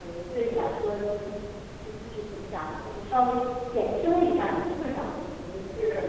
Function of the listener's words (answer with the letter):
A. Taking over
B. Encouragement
A